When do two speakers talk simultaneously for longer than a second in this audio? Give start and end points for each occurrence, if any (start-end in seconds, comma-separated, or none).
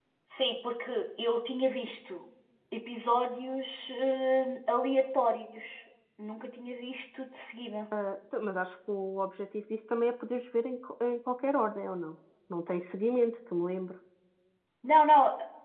none